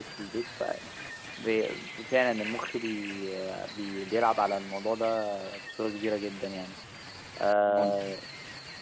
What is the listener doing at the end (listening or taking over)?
listening